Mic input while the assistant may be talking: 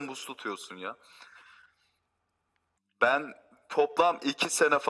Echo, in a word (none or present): present